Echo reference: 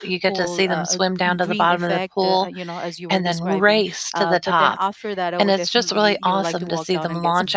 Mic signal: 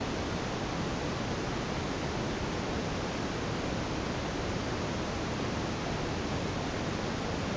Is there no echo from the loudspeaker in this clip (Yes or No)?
Yes